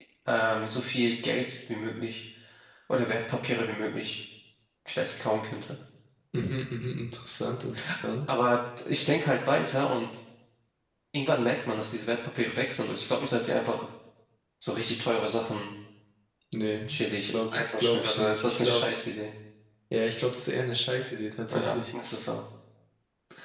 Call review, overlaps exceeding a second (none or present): present